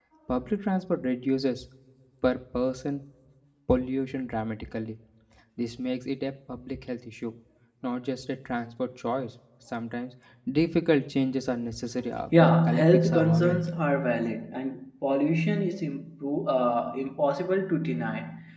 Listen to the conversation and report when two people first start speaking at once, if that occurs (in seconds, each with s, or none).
12.3 s